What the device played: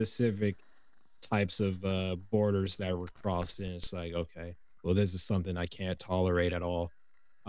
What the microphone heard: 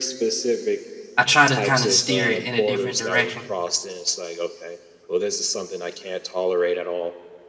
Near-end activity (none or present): present